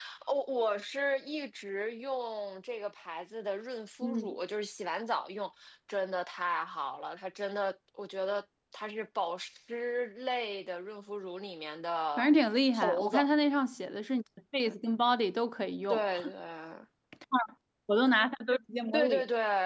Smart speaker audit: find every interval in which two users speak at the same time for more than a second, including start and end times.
none

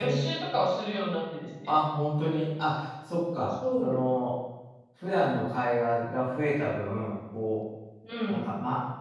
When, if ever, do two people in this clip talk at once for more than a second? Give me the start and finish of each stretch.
none

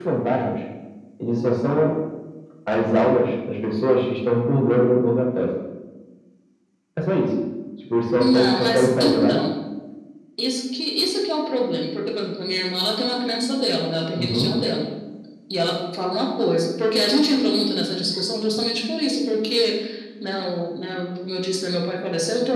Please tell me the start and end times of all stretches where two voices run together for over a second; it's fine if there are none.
8.2-9.4

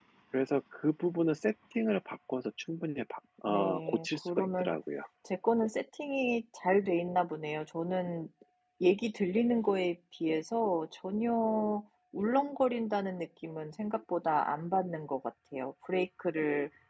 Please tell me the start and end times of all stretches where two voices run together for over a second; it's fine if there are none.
3.5-4.8

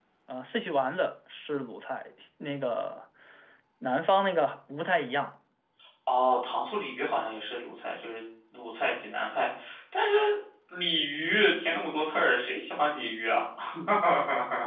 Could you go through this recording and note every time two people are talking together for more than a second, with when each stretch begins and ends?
none

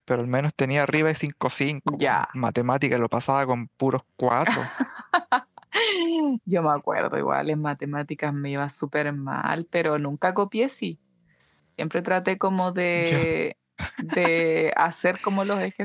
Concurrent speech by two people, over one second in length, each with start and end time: none

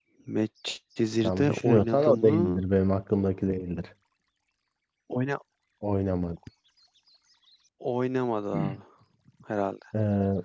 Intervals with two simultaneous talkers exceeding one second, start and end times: 1.2-2.7

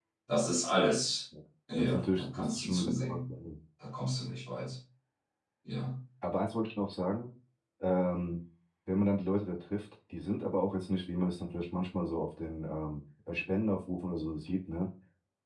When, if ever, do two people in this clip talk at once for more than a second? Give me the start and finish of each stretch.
1.8-3.3

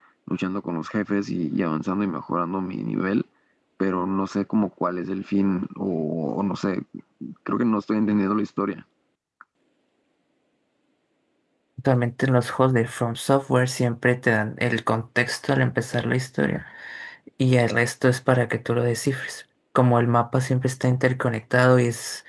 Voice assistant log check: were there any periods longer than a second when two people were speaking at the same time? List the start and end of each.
none

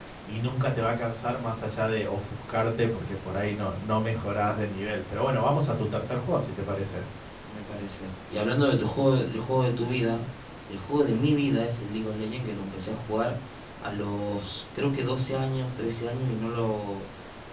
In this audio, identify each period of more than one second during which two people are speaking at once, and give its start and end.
none

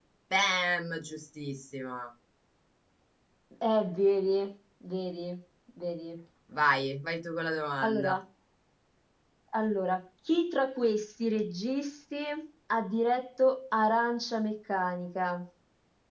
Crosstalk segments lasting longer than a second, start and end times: none

